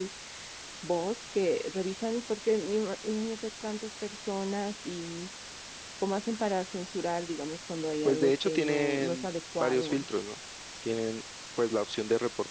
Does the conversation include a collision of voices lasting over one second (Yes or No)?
Yes